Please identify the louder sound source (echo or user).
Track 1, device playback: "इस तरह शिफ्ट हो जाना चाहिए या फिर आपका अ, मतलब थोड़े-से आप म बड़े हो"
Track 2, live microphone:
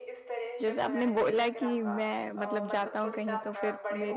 user